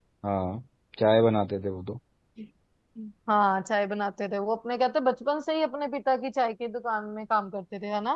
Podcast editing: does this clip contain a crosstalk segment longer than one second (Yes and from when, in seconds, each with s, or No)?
No